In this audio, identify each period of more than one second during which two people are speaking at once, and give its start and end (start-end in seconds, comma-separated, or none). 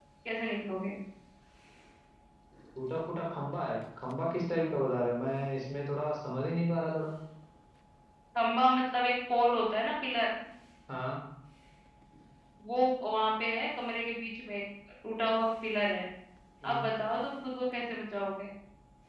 none